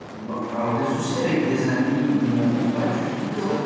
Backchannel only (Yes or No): Yes